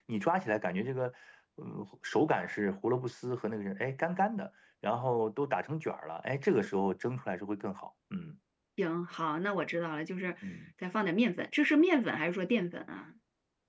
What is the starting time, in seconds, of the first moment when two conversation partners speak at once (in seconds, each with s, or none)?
none